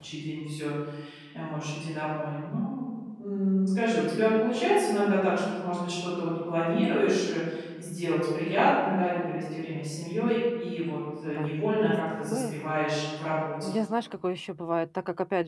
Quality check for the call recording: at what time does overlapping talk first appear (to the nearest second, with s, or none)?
11 s